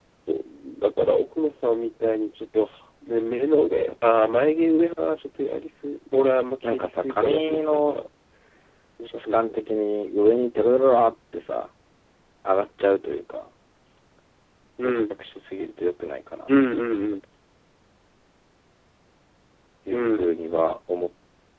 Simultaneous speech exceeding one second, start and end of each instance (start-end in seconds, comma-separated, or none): 6.6-8.0